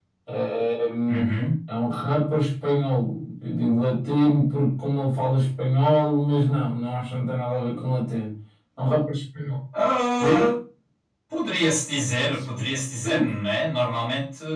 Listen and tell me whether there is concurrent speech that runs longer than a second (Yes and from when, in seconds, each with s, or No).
No